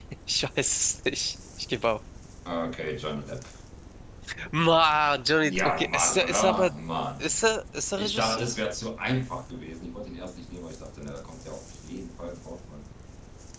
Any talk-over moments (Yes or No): Yes